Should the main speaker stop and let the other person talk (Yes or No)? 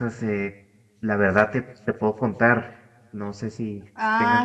Yes